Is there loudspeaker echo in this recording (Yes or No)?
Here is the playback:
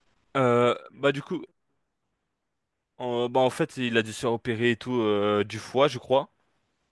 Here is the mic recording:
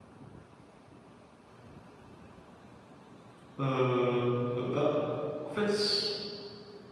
No